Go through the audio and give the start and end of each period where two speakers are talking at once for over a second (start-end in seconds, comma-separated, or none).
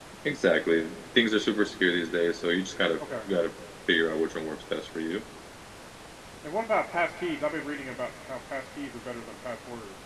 none